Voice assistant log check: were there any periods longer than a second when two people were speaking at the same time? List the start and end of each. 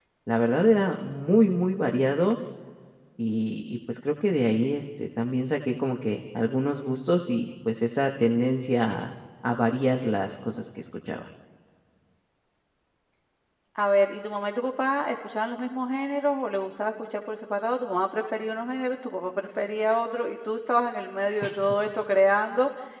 none

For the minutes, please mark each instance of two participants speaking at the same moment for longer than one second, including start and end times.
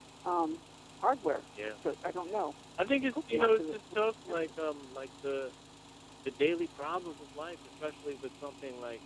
3.1-4.5

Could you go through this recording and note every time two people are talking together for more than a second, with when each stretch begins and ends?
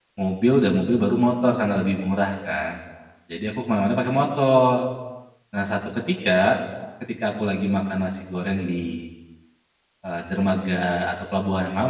none

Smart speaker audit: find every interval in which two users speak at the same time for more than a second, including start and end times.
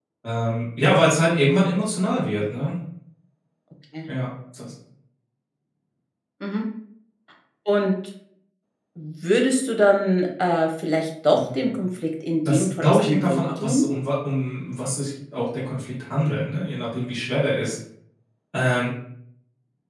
12.5-13.8

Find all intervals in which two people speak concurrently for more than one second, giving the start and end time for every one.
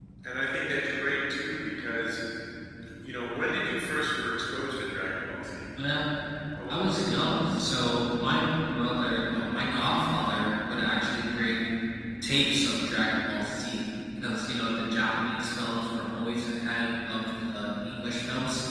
none

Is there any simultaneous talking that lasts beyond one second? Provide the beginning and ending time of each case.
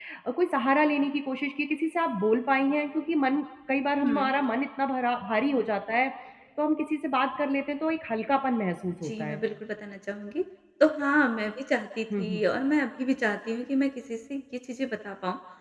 none

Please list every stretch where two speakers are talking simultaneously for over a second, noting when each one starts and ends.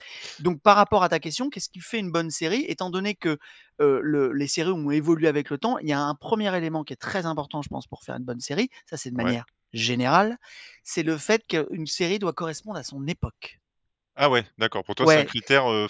none

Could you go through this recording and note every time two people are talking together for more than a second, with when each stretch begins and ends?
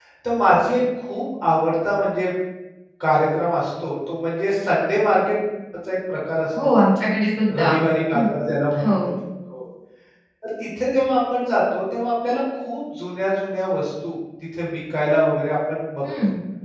none

